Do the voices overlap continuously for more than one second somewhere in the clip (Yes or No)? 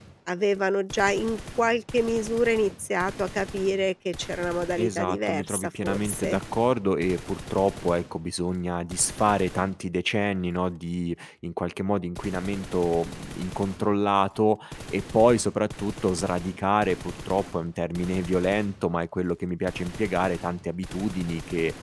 Yes